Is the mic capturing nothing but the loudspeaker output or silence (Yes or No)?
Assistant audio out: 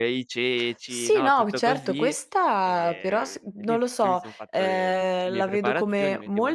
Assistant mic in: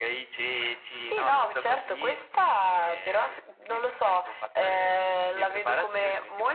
Yes